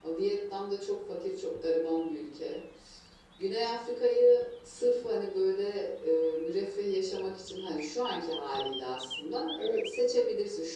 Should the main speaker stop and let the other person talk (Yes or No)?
No